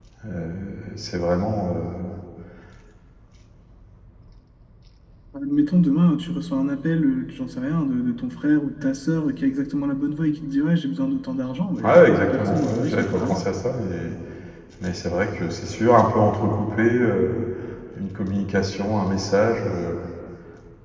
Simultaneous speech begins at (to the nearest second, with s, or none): 12 s